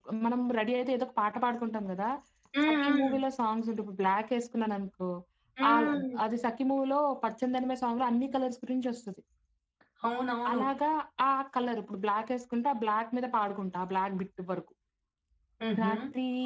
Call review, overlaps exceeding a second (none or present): none